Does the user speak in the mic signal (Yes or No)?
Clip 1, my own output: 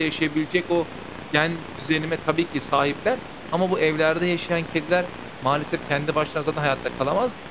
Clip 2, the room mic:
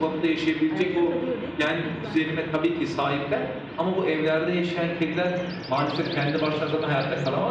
Yes